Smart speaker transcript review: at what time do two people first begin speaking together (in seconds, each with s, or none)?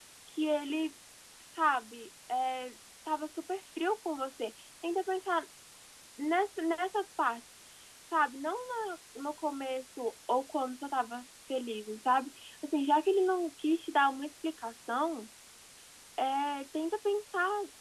none